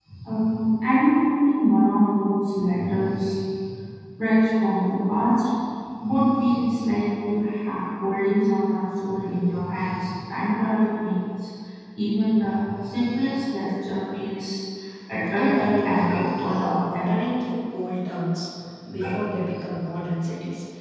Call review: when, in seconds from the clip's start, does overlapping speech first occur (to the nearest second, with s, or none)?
15 s